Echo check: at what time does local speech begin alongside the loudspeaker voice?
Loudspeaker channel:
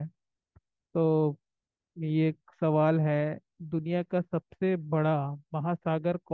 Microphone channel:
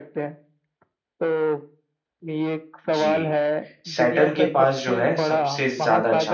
3 s

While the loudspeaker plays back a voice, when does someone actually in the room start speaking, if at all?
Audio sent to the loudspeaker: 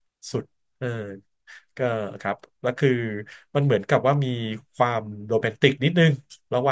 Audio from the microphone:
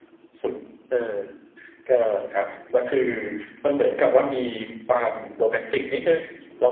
none

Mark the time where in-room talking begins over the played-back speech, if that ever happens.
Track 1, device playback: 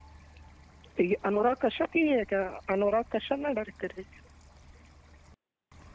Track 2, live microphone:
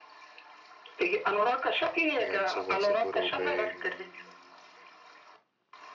2 s

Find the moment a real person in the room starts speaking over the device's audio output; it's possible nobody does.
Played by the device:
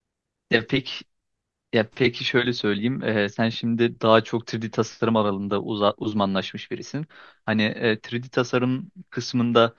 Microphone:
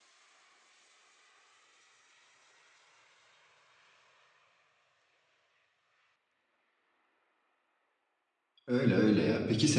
9 s

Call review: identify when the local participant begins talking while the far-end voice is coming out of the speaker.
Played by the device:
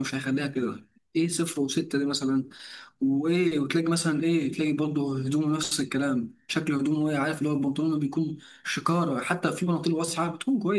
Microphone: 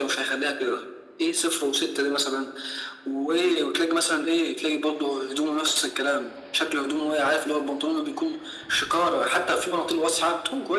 none

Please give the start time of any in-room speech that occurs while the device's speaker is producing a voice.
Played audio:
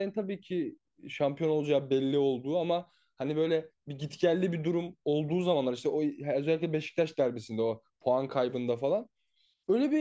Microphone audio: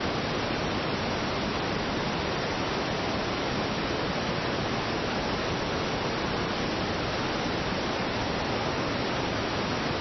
none

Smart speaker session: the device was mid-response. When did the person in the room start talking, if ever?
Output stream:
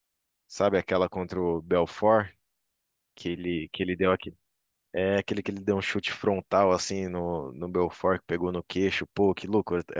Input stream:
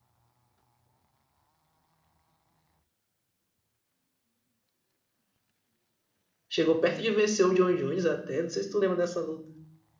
6 s

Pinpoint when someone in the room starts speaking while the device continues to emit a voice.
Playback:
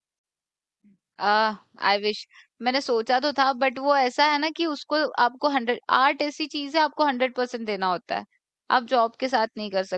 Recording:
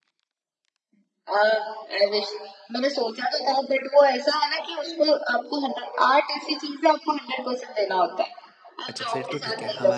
9 s

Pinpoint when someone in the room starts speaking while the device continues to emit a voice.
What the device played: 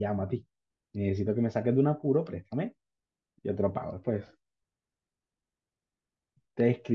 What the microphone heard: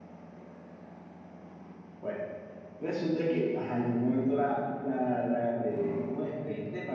2 s

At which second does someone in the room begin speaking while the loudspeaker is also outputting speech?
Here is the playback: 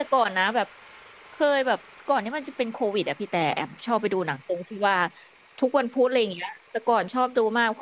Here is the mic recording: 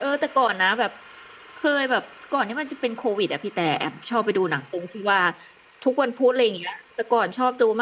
none

